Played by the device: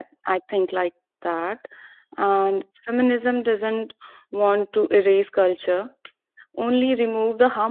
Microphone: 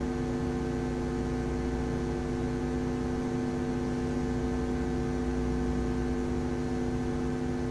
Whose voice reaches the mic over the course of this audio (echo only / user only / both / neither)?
neither